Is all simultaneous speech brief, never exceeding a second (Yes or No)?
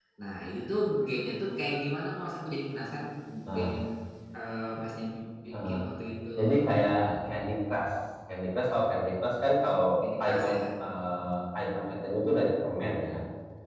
Yes